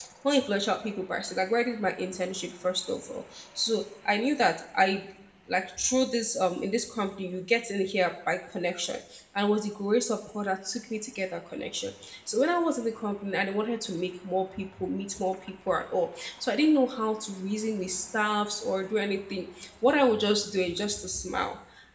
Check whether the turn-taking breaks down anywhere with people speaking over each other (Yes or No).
No